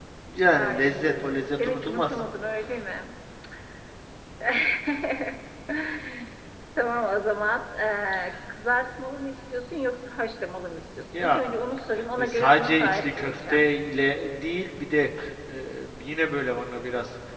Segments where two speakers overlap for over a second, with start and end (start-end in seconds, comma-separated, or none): 0.5-2.1, 12.2-13.6